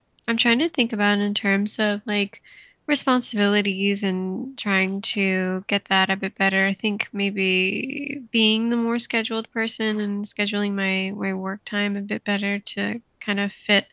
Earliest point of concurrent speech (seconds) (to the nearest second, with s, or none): none